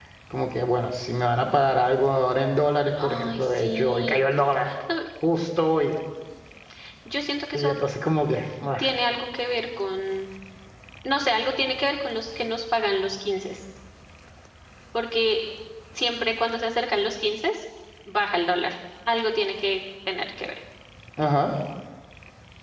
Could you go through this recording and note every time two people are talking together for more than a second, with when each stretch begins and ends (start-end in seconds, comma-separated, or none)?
3.0-4.3